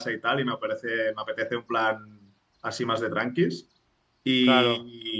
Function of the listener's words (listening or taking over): listening